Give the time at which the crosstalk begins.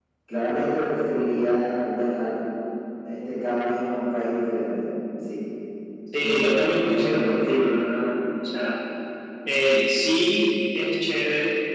6.2 s

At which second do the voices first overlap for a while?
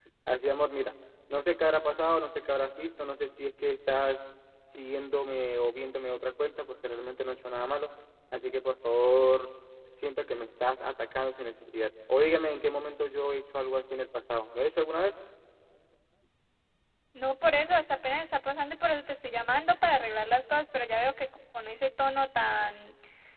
none

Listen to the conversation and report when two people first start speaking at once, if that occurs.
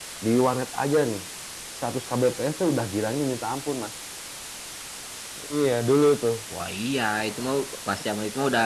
none

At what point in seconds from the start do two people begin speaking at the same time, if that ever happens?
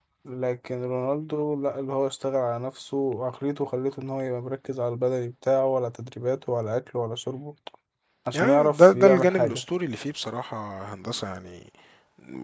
8.3 s

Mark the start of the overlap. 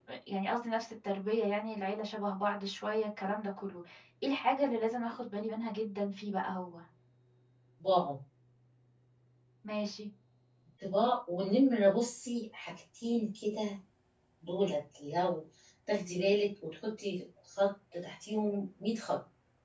none

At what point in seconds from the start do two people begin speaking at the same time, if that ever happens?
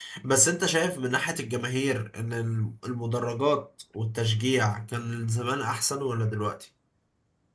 none

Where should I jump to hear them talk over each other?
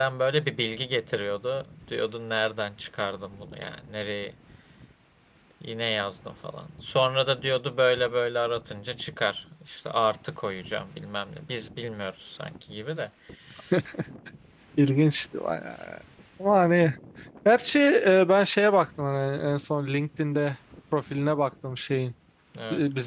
none

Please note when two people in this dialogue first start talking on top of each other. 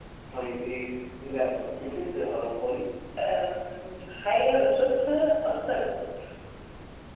none

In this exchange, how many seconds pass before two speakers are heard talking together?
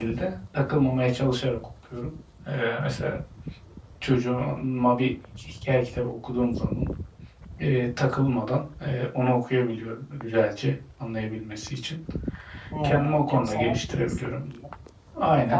12.8 s

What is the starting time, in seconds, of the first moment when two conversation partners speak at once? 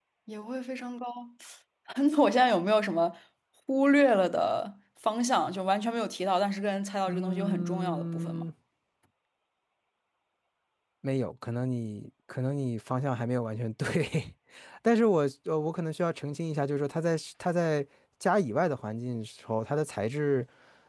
7.1 s

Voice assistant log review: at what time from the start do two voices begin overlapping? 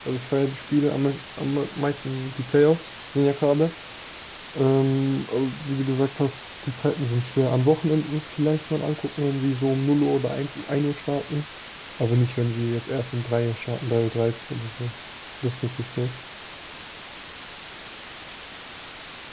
none

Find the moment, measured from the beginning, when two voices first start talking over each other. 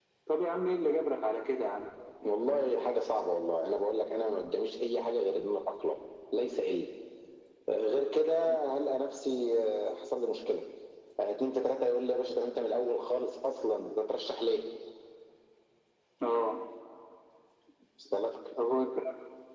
none

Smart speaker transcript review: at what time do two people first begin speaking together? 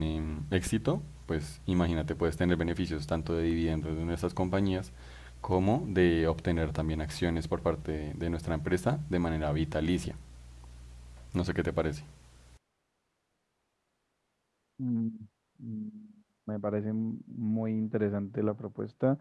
none

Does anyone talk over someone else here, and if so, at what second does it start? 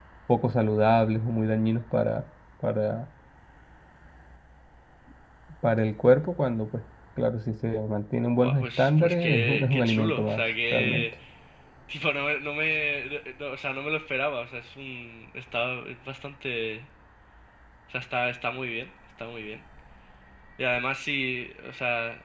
8.3 s

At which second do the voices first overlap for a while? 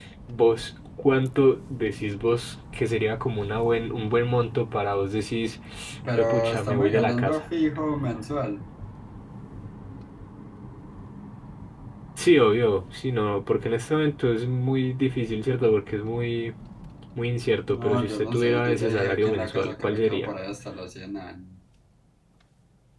6.2 s

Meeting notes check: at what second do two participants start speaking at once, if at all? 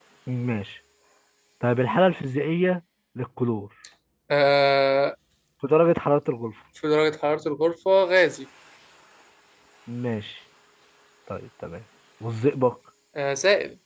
none

